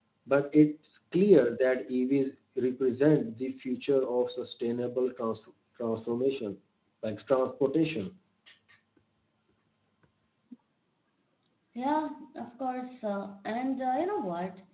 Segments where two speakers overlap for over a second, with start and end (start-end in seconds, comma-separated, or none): none